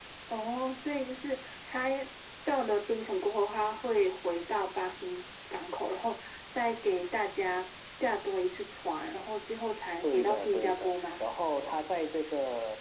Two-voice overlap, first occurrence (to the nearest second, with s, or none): 10 s